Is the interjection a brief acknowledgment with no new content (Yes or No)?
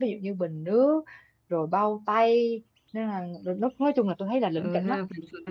No